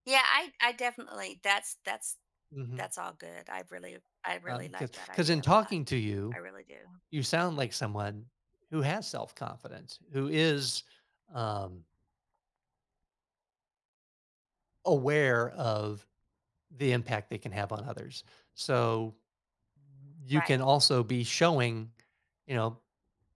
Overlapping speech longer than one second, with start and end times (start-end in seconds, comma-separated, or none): 4.5-5.7